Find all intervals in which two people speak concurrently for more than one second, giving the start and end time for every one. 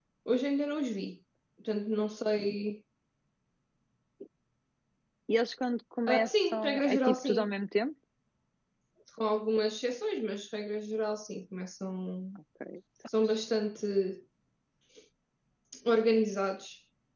6.1-7.5

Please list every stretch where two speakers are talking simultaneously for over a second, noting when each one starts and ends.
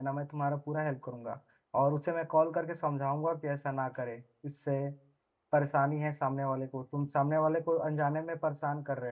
none

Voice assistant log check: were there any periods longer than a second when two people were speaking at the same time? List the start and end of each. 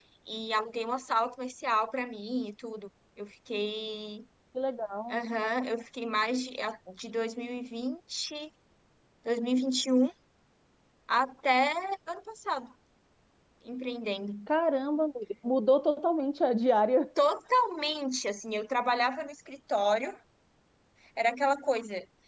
none

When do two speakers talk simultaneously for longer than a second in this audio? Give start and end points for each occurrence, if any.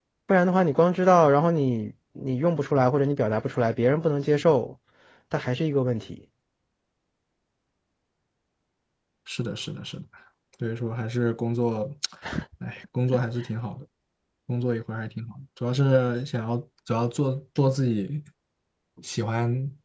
none

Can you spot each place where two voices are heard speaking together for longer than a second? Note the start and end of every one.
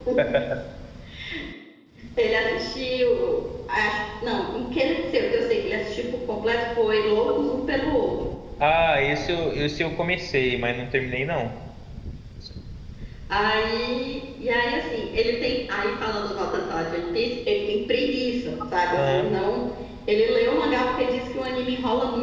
none

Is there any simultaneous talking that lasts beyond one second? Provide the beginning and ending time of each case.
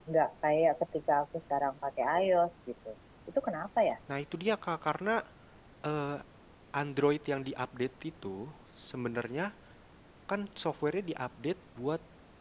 none

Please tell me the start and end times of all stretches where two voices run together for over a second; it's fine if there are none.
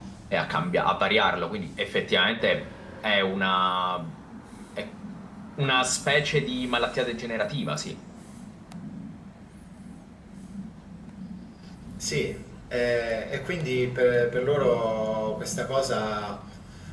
none

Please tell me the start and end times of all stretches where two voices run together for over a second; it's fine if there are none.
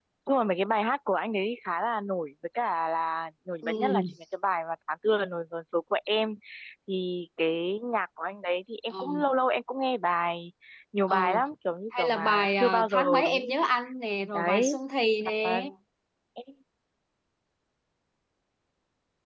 12.0-13.7

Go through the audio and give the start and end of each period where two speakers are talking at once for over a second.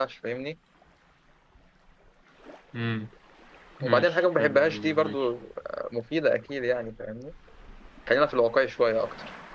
3.8-5.3

